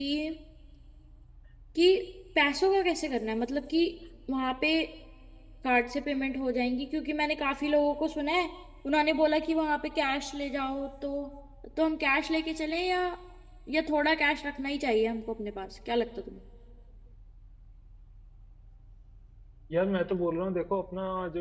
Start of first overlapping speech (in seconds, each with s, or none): none